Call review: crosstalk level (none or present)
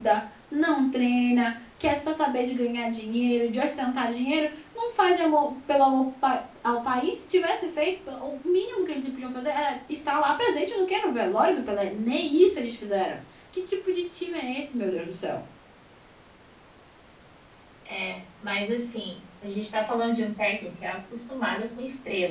none